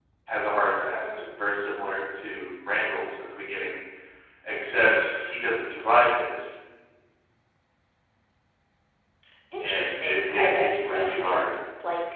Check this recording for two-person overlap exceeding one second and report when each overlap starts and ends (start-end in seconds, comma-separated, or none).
9.6-11.5